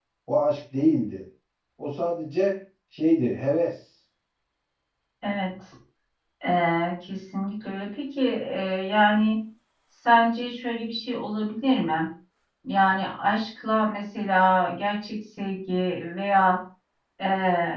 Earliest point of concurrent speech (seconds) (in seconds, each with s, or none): none